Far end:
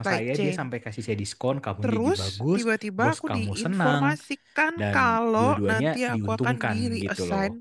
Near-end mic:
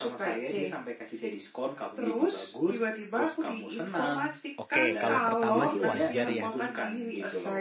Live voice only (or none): oke, kalau pertama sih wajar ya